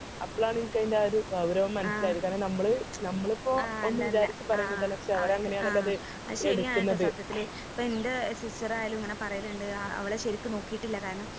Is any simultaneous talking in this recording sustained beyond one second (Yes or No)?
Yes